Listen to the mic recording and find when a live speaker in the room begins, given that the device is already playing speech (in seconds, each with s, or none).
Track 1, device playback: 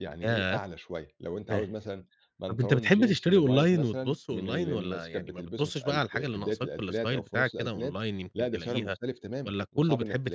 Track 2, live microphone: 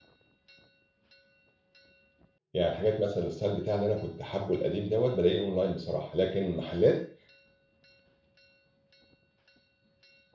2.5 s